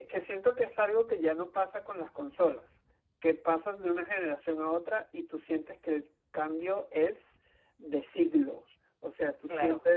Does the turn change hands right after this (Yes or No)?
No